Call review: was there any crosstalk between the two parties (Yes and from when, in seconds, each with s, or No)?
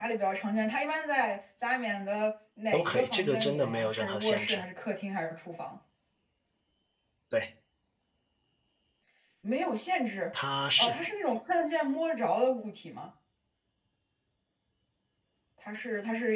Yes, from 2.7 s